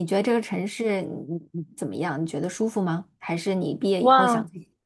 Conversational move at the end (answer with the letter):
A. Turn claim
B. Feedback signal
A